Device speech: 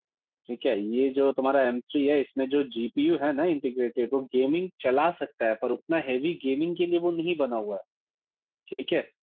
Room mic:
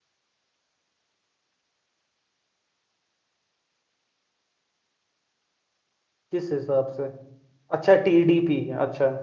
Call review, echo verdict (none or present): none